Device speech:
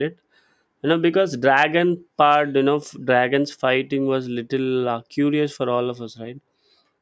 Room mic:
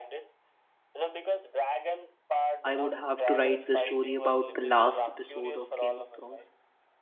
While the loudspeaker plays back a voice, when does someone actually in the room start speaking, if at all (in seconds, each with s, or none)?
2.6 s